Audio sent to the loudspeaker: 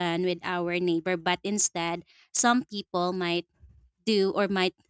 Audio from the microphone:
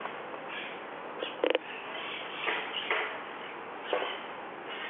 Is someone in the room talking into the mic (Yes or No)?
No